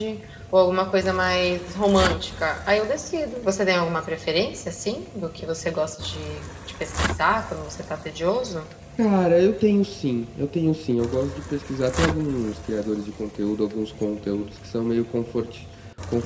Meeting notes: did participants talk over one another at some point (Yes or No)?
No